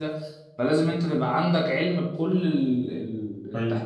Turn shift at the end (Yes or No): Yes